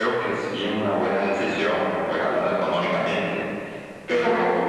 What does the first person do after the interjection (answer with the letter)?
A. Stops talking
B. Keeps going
A